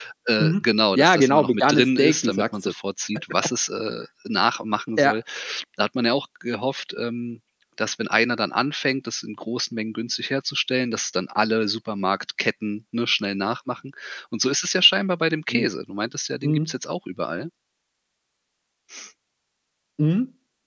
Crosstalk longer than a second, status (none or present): present